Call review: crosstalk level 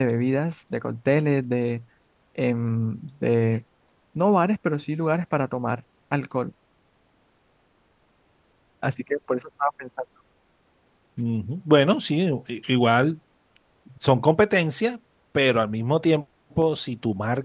none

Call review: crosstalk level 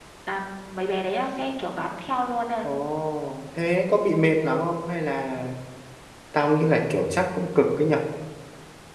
none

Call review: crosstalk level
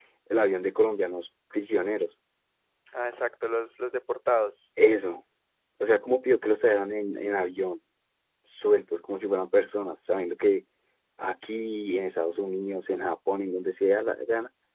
none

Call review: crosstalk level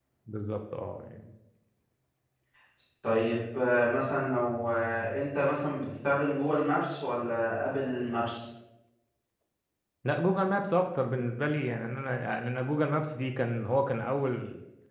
none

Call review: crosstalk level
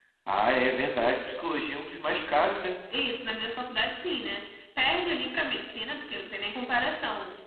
none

